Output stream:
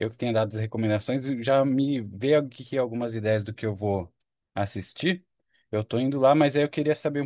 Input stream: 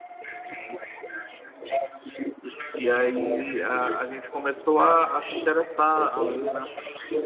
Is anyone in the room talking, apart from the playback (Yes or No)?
Yes